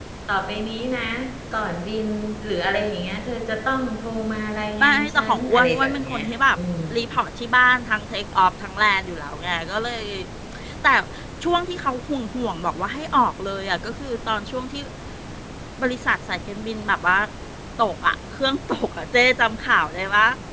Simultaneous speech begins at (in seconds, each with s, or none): 4.8 s